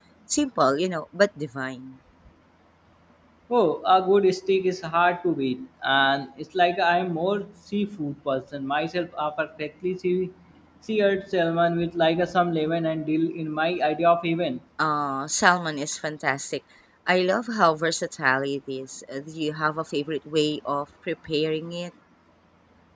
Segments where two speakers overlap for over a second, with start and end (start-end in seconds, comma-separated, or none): none